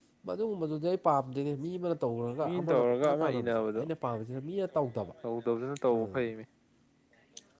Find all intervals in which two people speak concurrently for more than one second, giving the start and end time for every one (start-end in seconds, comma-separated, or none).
2.4-3.8